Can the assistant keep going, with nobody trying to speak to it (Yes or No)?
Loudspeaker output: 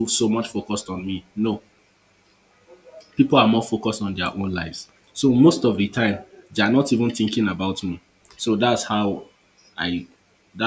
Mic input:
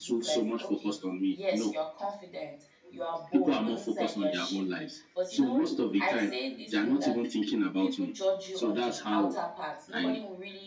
No